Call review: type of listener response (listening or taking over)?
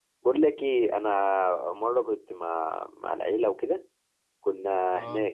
listening